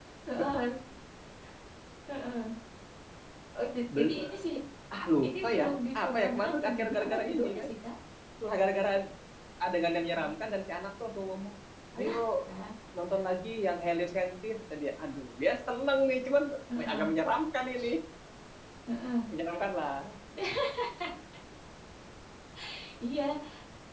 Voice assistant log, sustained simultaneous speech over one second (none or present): present